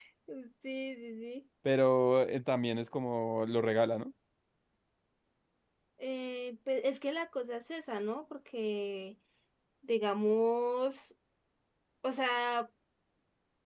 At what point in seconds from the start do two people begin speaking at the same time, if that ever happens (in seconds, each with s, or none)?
none